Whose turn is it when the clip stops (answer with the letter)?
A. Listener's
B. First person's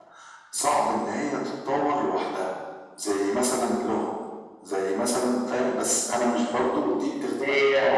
A